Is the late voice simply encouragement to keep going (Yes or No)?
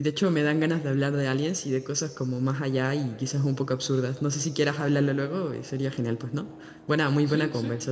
No